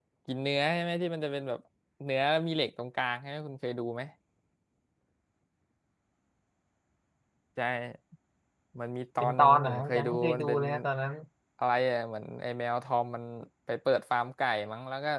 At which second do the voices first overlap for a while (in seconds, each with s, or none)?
9.2 s